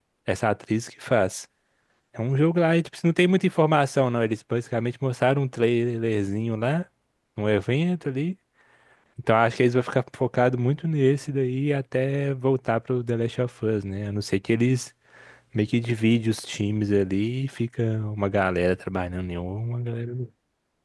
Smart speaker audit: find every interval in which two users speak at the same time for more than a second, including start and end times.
none

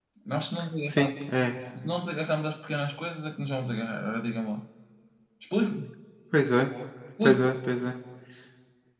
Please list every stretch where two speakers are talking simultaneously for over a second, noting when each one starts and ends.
none

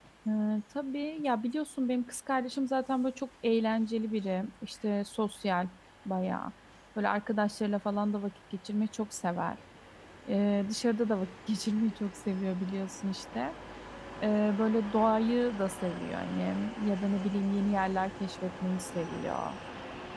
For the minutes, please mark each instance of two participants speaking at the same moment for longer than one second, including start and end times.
none

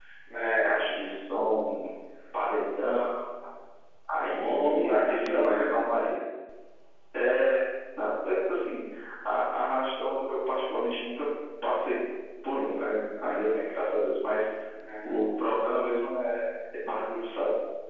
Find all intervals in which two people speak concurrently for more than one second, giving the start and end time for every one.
4.3-5.8

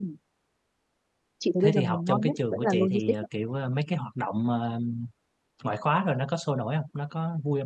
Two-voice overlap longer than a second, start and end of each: 1.6-3.0

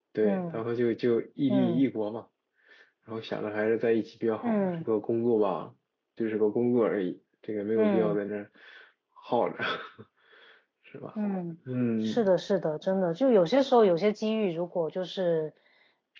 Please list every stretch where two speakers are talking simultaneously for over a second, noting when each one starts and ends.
none

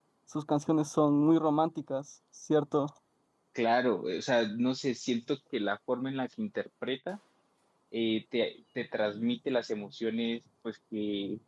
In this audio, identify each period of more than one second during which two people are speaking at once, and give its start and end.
none

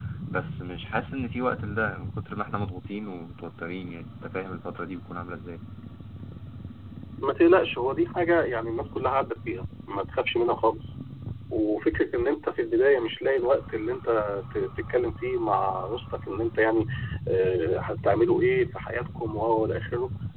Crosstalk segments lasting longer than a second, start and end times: none

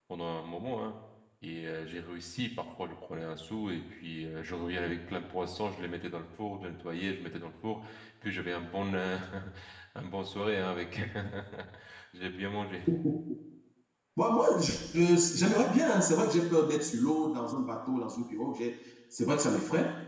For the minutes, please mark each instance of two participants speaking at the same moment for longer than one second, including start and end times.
none

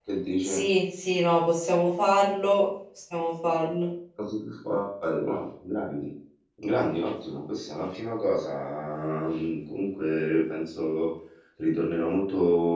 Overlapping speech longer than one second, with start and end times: none

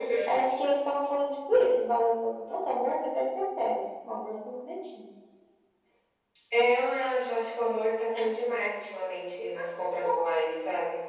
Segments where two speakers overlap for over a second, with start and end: none

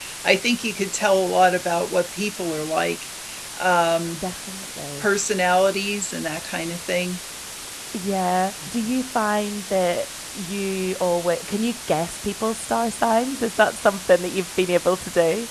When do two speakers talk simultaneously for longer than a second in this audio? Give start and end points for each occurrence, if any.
none

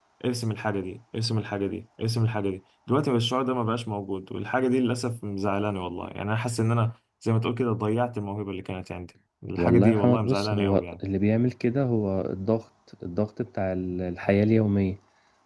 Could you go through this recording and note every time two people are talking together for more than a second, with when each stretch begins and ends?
9.6-10.8

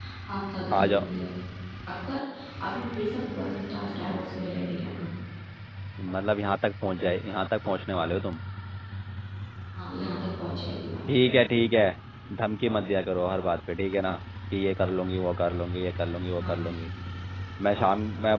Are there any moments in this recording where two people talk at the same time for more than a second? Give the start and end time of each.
none

